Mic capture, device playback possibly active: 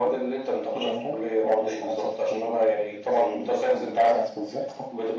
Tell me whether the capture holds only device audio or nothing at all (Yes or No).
Yes